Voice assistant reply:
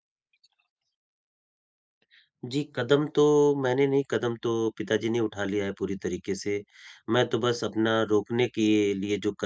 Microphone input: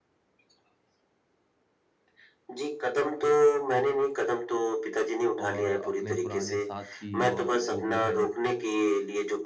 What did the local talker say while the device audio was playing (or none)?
और अपने पुराने साथी और जो भी है